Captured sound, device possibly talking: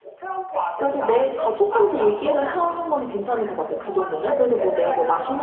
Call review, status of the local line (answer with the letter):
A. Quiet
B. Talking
B